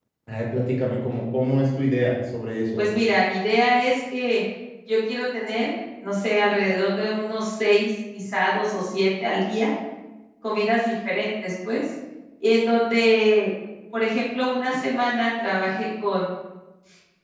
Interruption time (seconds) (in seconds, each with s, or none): none